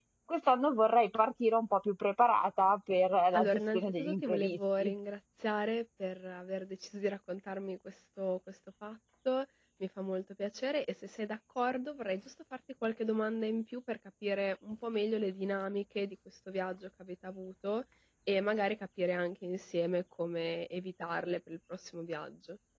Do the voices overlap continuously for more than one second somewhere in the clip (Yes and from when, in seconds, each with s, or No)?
Yes, from 3.3 s